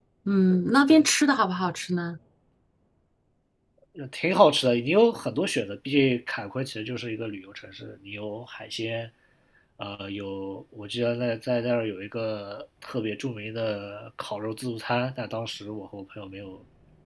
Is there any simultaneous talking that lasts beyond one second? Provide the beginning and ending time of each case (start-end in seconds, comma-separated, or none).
none